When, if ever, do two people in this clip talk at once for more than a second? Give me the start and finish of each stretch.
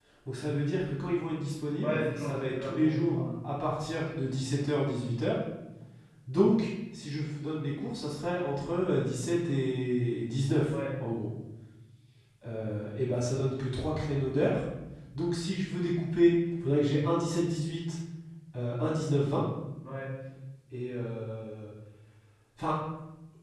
1.8-3.2

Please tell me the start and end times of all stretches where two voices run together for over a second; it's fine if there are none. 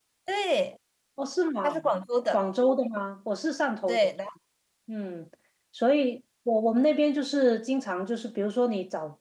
none

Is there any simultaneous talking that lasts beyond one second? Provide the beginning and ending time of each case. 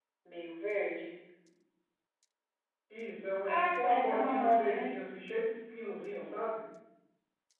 3.5-4.9

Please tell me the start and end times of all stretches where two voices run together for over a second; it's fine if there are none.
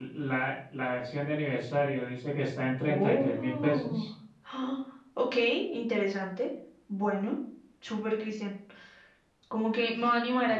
2.8-4.1

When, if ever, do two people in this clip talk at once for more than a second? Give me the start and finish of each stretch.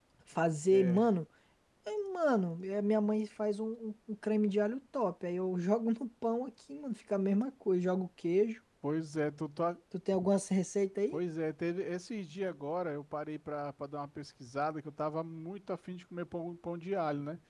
none

